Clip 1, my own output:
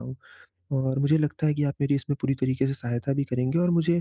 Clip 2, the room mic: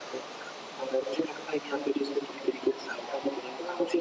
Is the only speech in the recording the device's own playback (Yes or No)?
Yes